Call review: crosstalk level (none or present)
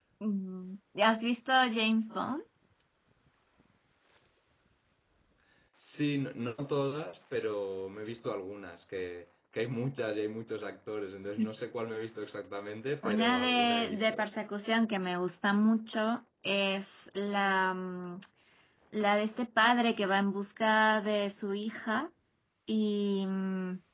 present